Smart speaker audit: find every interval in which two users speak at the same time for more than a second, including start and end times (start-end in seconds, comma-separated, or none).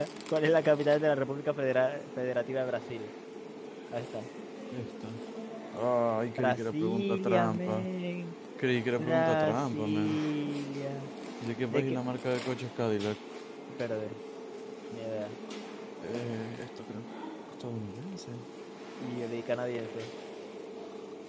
6.4-7.9, 9.0-10.2